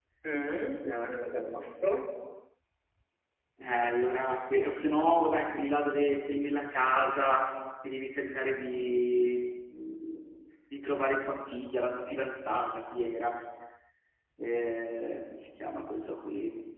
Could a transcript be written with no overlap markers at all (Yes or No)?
Yes